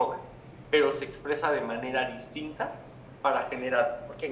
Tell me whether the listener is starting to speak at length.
Yes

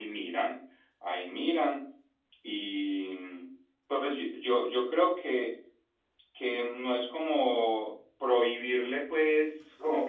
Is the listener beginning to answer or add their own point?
No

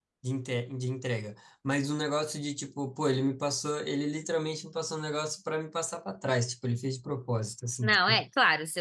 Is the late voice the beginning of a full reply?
Yes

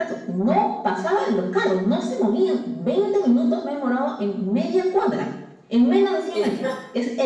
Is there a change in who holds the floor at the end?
No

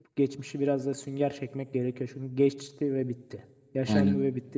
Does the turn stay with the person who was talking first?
No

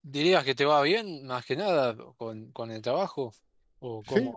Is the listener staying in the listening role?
No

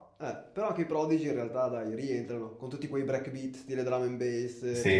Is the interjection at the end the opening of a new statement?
Yes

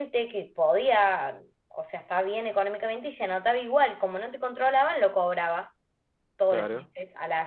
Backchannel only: Yes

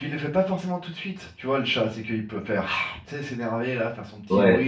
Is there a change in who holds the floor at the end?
Yes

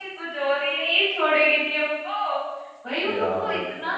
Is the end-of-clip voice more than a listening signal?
No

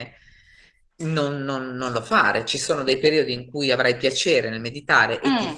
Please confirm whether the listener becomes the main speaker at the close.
No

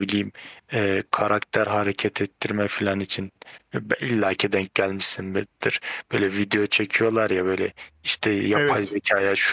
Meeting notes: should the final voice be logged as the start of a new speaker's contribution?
No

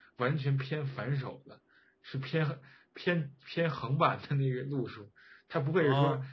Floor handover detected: No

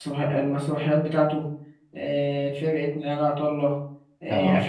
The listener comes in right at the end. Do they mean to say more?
No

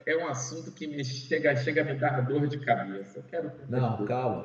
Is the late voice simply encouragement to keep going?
No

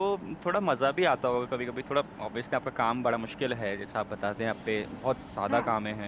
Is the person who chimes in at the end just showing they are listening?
Yes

